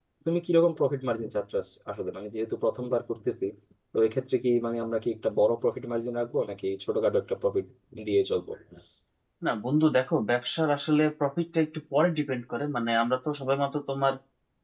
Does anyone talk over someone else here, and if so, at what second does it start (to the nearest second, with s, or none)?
none